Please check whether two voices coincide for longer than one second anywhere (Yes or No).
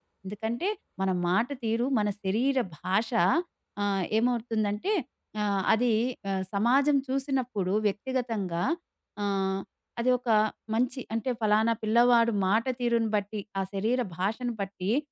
No